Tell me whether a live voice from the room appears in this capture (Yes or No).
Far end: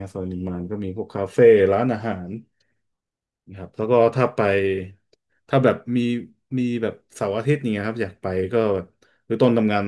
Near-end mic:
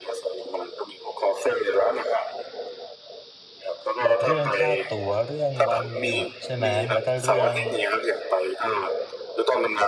Yes